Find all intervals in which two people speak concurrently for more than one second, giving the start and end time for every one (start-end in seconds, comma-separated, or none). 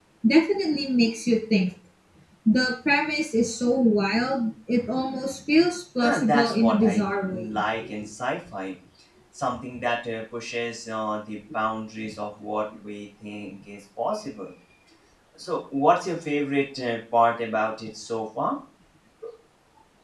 6.0-7.5